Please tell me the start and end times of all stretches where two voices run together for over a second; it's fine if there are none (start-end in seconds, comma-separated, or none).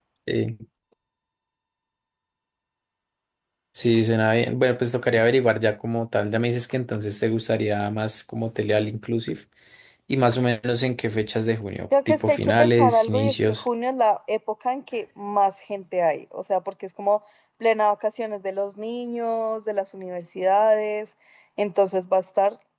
12.1-13.6